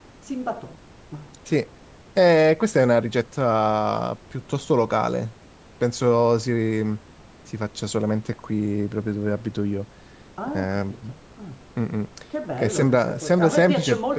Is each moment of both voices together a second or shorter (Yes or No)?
No